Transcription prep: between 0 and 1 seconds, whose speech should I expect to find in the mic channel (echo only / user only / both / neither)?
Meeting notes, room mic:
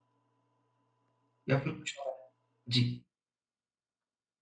neither